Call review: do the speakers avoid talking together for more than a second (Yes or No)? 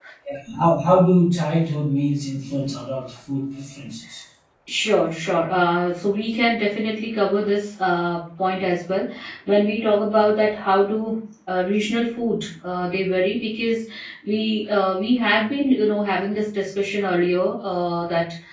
Yes